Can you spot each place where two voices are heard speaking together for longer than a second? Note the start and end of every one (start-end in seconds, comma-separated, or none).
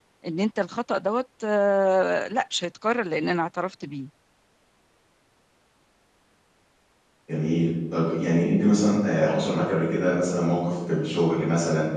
none